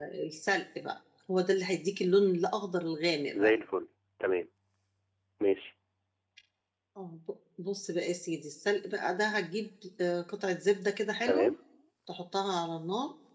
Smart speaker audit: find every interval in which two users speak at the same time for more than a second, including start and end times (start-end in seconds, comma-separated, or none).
none